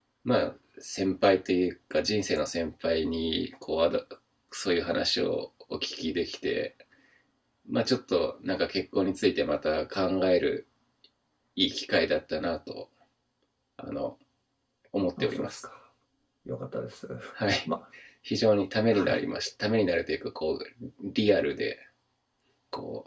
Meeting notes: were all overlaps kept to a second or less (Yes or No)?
Yes